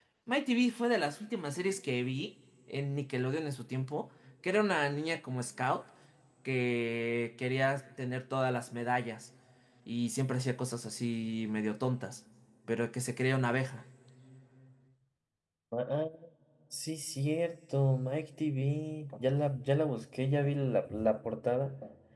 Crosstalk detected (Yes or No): No